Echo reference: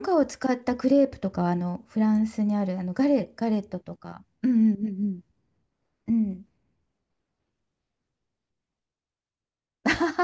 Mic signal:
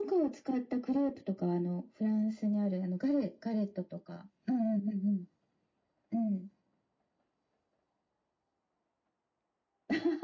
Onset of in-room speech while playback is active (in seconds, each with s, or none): none